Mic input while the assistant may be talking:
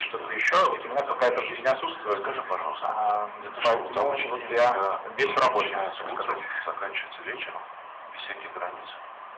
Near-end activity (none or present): none